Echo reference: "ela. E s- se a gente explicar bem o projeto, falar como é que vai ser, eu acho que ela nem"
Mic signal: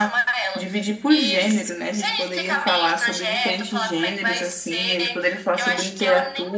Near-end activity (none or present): present